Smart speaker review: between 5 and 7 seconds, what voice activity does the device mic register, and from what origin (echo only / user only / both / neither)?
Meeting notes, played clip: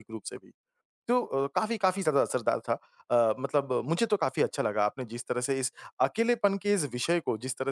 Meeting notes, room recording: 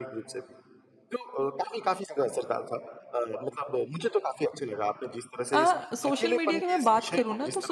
both